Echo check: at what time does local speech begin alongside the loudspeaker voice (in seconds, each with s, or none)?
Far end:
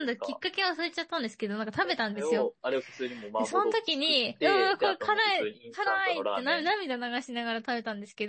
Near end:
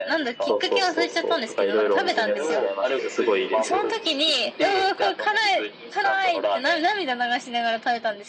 0.4 s